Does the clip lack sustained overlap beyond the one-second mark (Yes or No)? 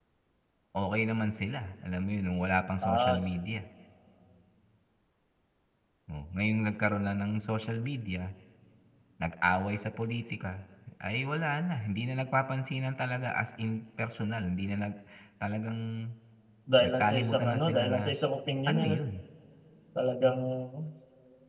No